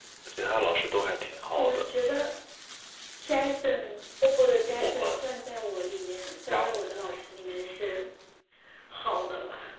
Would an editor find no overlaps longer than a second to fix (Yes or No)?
Yes